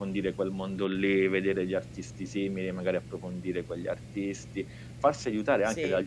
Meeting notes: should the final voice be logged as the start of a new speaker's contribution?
No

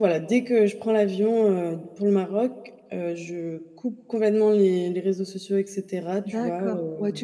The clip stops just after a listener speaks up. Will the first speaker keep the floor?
No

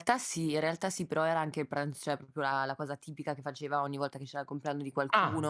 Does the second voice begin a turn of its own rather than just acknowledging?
No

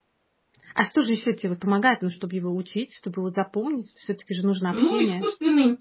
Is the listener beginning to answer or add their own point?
Yes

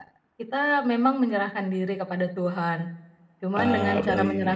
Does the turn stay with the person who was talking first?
Yes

